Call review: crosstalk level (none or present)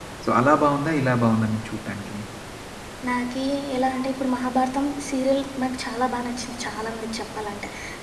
none